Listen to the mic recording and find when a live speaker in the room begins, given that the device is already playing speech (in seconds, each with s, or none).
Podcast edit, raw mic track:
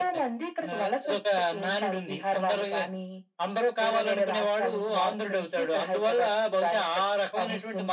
none